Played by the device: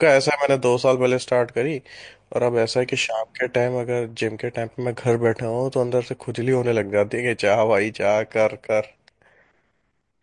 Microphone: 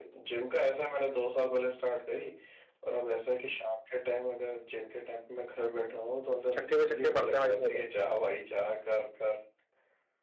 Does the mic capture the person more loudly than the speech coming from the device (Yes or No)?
Yes